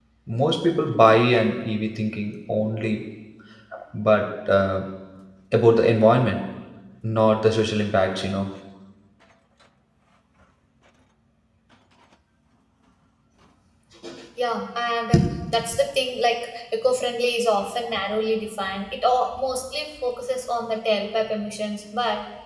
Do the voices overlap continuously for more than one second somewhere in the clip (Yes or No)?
No